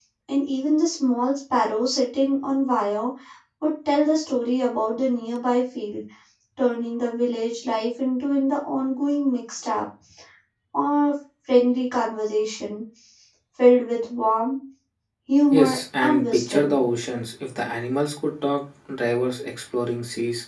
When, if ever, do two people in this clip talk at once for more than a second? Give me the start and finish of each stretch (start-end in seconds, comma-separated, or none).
15.5-16.8